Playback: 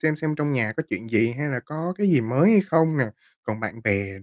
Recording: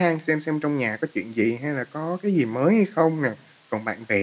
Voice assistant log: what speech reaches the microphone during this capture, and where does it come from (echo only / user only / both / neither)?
echo only